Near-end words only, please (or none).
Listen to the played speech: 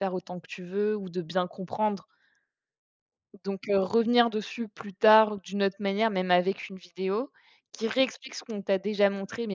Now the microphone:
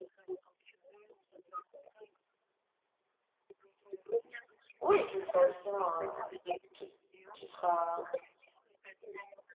Oui, de toute façon, heu, toute tu seras